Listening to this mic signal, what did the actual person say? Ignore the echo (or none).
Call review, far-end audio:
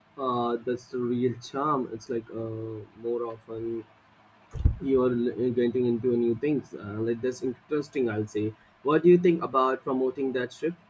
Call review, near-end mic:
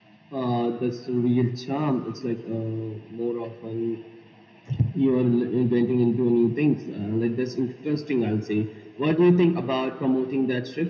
none